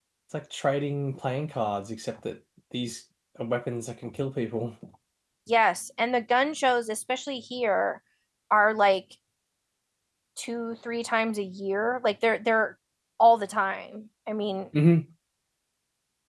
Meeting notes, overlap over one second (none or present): none